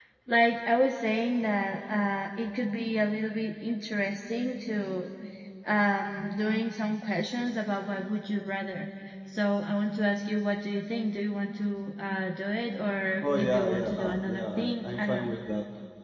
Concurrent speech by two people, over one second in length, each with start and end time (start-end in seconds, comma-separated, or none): 13.2-15.3